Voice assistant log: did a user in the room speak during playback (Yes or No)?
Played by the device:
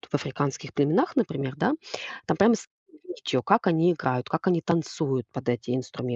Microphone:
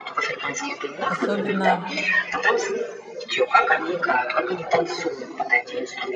Yes